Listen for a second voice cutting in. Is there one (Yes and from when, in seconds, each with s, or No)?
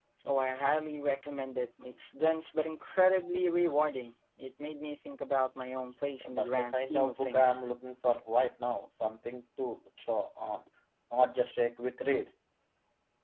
Yes, from 6.2 s